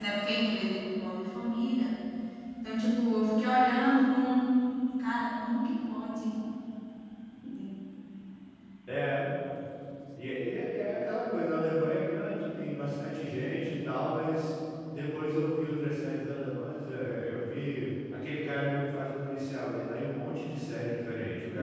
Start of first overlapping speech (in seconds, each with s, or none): none